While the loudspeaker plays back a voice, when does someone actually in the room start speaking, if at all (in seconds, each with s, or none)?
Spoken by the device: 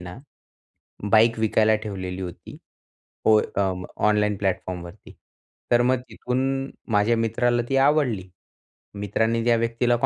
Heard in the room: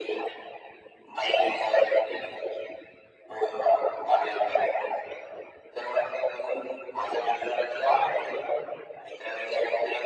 none